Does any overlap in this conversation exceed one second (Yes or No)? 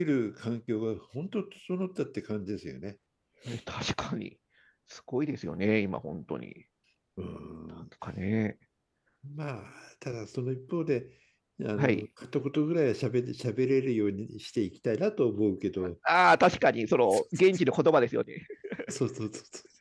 No